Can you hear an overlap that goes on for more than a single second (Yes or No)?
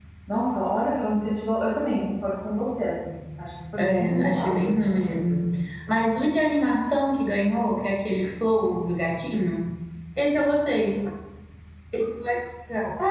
Yes